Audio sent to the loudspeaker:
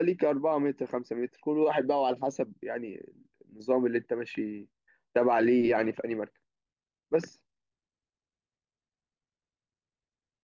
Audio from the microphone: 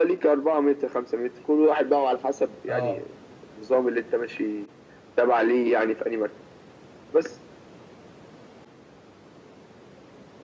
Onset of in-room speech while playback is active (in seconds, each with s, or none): 2.7 s